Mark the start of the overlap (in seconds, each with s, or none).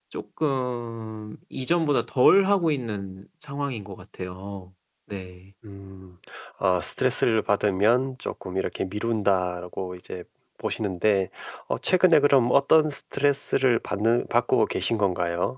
none